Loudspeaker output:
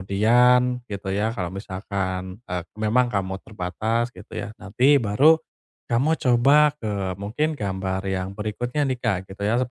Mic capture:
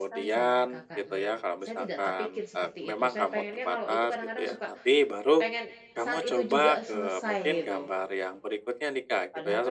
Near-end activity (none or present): present